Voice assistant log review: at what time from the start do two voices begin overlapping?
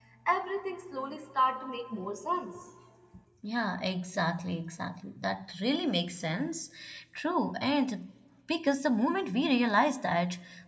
none

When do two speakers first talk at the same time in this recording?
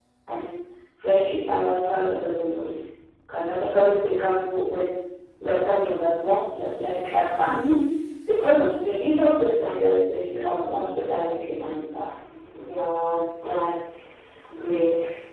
none

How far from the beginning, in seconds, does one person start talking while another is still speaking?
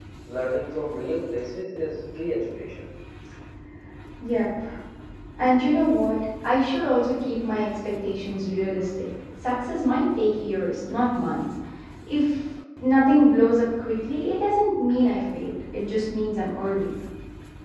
none

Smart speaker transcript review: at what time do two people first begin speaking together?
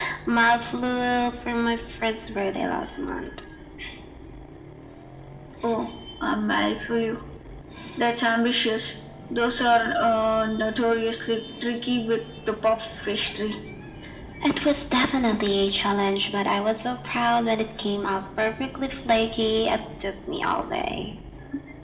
none

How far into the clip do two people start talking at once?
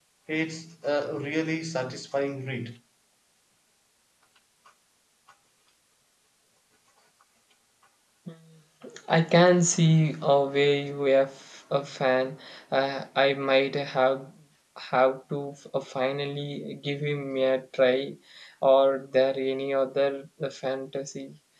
none

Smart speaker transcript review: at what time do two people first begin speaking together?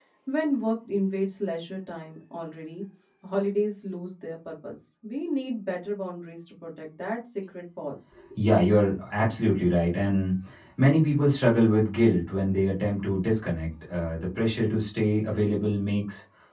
none

